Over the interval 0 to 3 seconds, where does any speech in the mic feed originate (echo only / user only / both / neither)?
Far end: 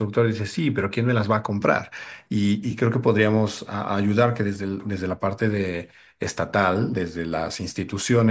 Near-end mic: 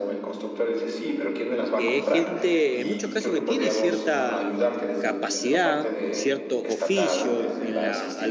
both